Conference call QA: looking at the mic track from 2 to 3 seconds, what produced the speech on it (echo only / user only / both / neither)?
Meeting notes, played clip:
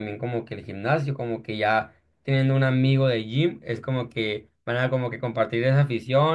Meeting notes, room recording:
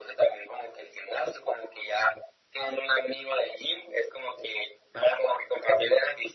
echo only